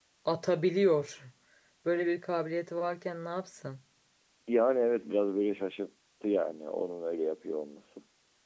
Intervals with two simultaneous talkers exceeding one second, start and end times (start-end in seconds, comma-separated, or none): none